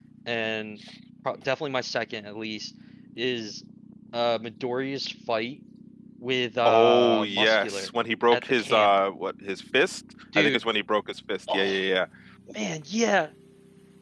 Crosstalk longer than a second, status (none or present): present